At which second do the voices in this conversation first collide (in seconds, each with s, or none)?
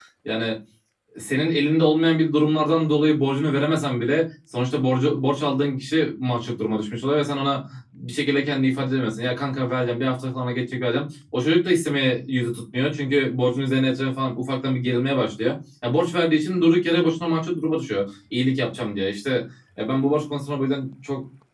none